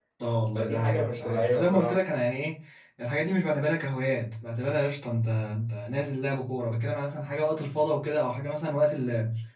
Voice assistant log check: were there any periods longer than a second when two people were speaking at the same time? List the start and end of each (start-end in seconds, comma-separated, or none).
0.6-2.0